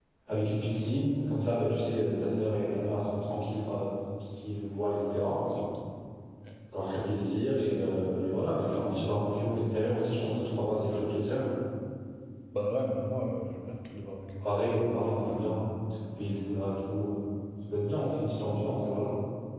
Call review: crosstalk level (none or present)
none